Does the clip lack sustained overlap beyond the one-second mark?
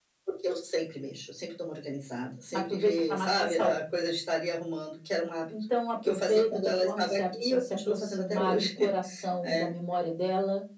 No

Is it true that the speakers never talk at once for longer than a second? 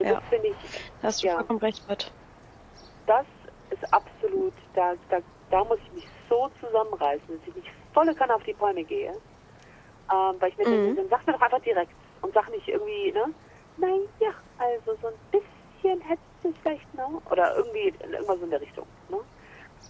Yes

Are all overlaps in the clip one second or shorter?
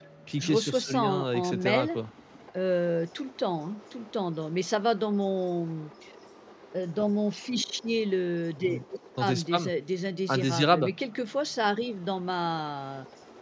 No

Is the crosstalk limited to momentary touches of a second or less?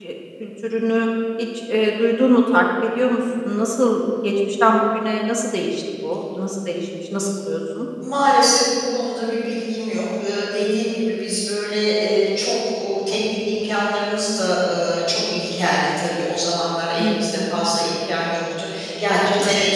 Yes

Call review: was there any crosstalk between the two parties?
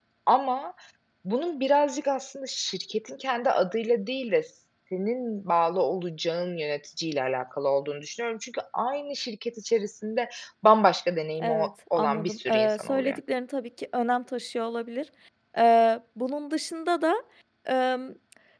Yes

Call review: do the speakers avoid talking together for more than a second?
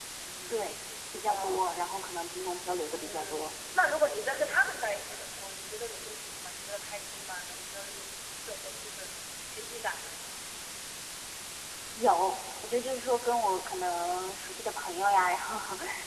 Yes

